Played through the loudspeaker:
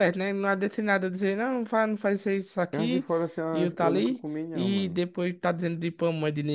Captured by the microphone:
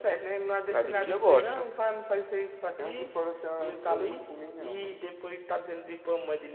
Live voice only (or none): Lá de milho eu gosto.